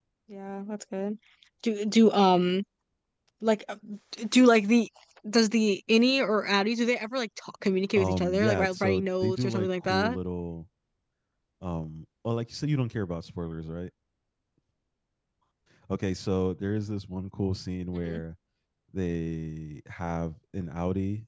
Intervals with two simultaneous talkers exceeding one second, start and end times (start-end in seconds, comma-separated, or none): 8.0-10.2